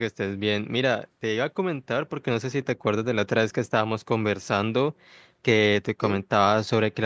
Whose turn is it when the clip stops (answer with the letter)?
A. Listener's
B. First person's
B